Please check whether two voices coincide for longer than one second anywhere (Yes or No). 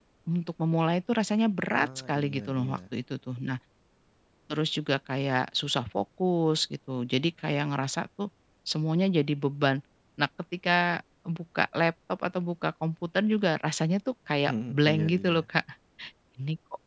Yes